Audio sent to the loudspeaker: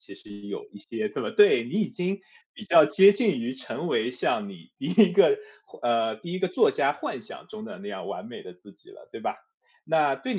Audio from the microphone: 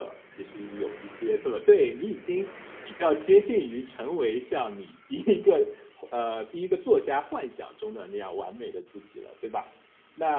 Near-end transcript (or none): none